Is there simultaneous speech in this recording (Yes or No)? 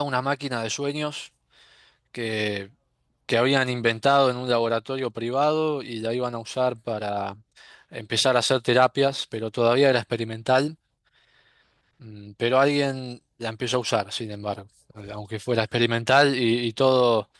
No